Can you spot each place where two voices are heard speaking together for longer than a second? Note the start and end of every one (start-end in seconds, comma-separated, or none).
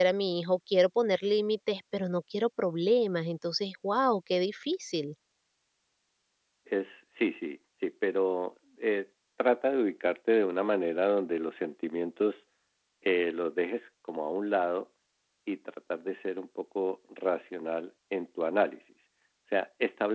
none